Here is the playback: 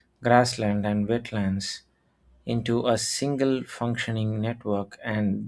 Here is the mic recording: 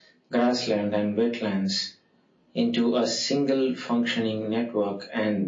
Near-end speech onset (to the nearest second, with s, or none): none